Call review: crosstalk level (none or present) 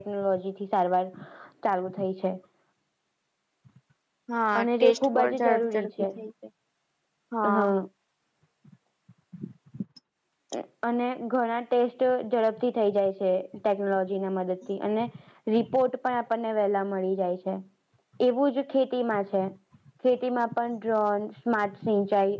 present